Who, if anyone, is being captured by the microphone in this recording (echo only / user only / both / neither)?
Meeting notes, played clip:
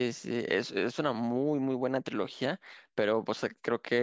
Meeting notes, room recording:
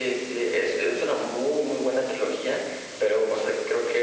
echo only